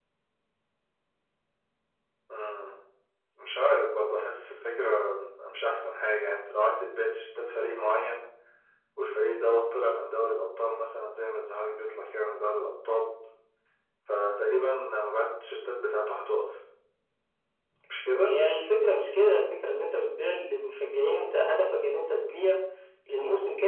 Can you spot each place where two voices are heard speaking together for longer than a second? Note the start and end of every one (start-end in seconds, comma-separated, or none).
none